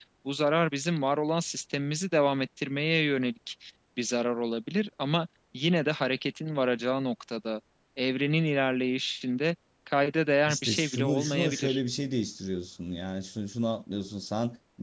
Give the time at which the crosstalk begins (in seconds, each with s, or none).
10.5 s